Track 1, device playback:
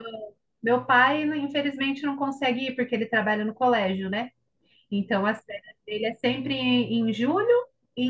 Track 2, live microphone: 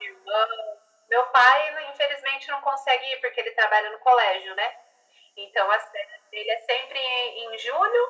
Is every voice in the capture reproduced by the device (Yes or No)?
Yes